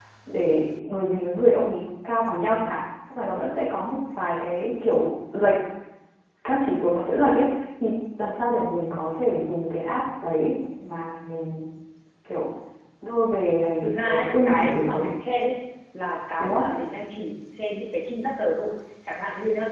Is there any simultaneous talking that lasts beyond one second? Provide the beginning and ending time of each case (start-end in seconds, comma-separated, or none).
13.8-15.1